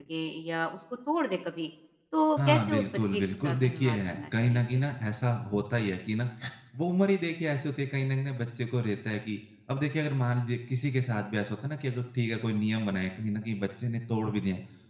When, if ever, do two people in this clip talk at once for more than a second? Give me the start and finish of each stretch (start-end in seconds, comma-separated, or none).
2.4-4.8